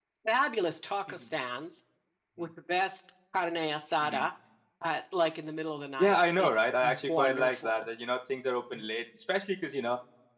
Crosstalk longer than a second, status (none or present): present